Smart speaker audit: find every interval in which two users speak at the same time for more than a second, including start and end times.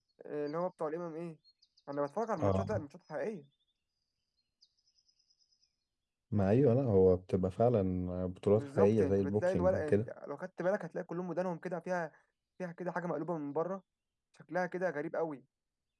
8.5-10.1

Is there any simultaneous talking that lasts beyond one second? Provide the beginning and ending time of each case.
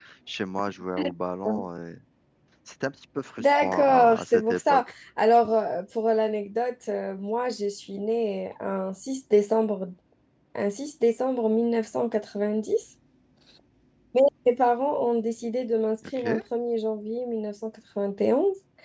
3.4-4.8

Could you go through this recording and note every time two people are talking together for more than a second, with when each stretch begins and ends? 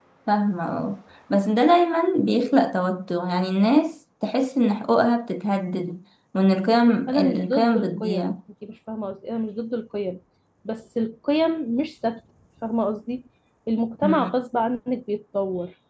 7.1-8.3

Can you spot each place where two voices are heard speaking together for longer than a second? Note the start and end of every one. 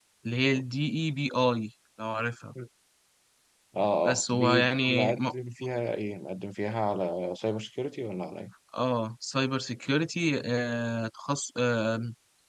4.0-5.3

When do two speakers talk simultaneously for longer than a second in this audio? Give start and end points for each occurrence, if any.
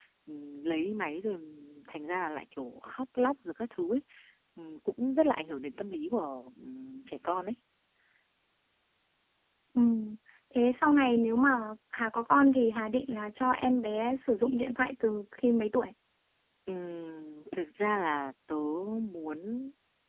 none

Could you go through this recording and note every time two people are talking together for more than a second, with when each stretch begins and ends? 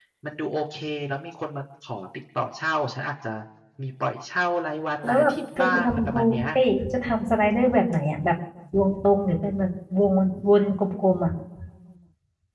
5.0-6.5

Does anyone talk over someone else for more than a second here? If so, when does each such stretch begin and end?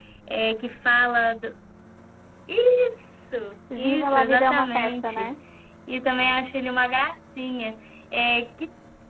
3.8-5.3

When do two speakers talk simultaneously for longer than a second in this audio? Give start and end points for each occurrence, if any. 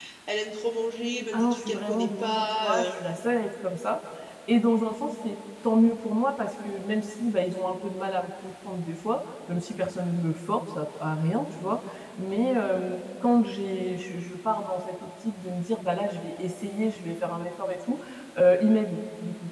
1.3-2.9

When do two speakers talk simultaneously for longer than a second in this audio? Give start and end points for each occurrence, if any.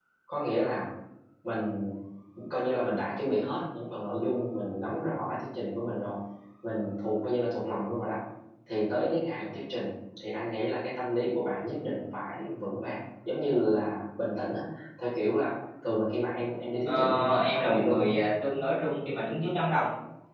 16.9-18.1

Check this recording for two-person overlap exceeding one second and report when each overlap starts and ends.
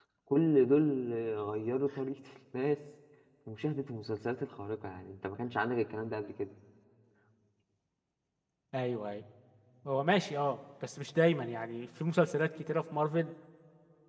none

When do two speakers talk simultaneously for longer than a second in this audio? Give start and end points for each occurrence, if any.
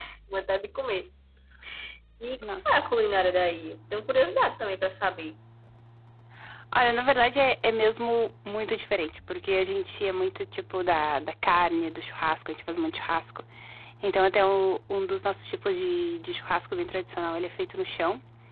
none

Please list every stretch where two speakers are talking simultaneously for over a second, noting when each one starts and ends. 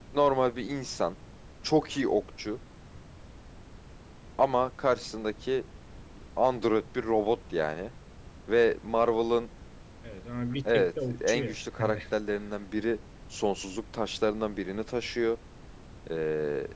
10.7-12.0

